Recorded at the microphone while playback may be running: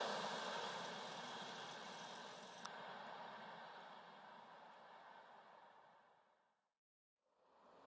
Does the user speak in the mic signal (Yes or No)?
No